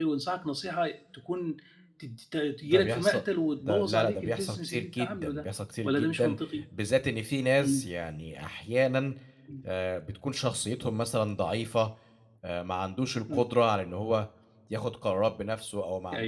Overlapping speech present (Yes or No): Yes